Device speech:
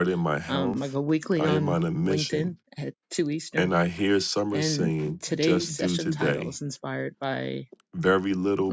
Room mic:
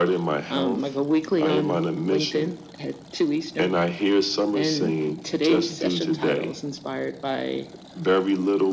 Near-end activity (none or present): none